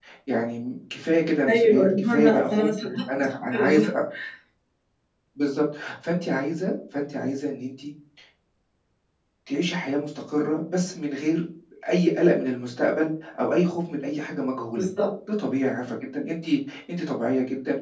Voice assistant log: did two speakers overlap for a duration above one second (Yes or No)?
Yes